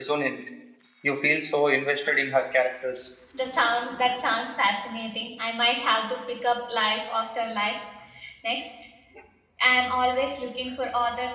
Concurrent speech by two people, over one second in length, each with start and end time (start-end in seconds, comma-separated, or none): none